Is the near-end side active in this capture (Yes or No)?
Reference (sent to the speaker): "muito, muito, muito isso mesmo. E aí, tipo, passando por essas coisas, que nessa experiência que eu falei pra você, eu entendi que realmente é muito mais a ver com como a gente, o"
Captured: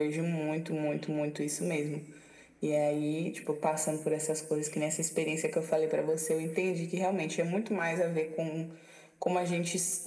No